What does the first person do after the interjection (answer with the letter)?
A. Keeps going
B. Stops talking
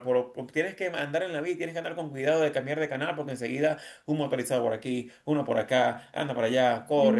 B